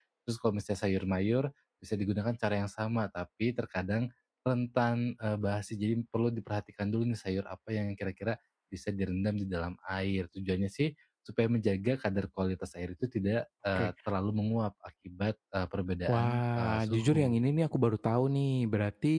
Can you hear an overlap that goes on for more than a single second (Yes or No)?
Yes